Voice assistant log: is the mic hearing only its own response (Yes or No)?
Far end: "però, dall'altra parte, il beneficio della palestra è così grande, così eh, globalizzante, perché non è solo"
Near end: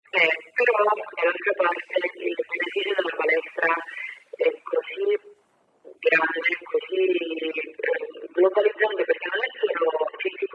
Yes